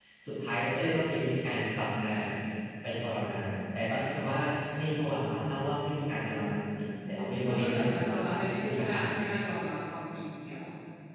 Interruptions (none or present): present